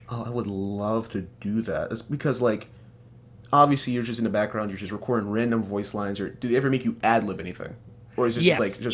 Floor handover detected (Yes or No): Yes